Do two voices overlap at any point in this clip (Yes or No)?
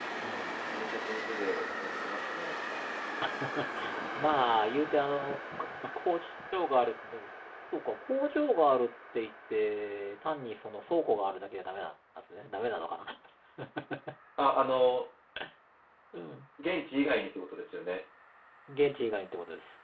No